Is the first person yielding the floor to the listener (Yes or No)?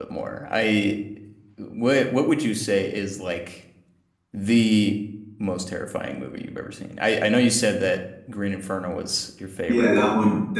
Yes